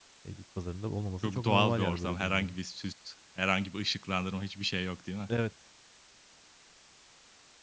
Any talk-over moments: Yes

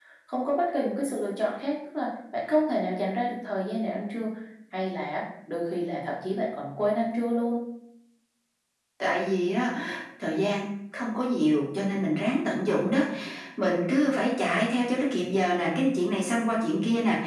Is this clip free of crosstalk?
Yes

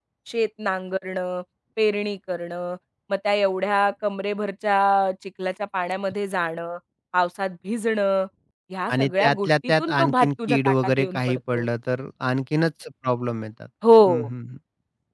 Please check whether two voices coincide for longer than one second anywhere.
Yes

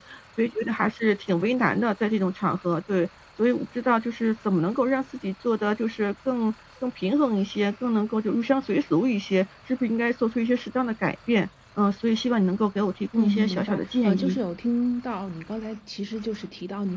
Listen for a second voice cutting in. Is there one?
Yes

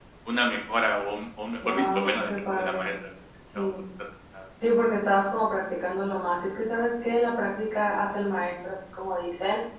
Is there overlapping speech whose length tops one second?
Yes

